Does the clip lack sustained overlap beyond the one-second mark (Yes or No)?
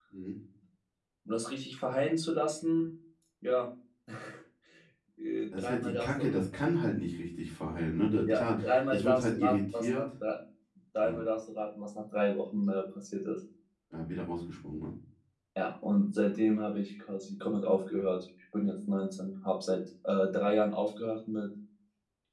No